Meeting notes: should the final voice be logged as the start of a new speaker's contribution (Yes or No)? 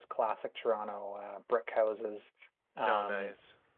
No